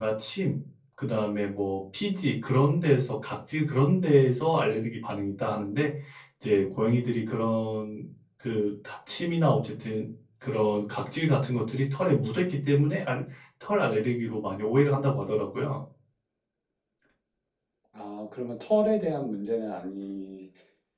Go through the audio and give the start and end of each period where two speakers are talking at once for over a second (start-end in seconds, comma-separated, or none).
none